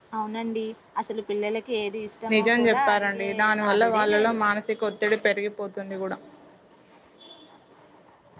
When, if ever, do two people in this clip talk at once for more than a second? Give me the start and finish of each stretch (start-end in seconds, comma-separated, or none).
2.3-4.4